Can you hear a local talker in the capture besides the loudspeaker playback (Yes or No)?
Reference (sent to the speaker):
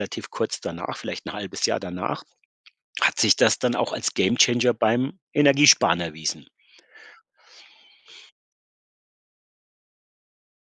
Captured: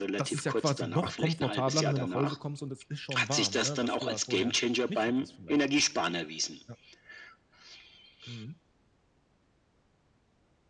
Yes